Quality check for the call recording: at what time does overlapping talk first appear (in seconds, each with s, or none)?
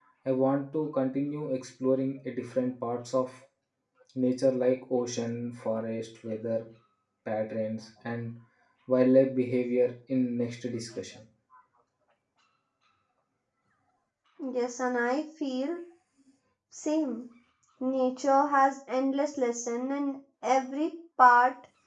none